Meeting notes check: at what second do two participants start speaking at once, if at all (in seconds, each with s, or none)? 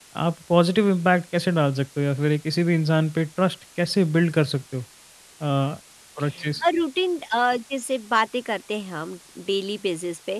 none